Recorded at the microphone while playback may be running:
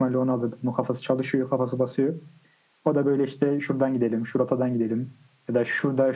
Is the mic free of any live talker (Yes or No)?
Yes